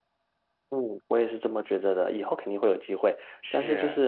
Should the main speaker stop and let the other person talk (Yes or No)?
No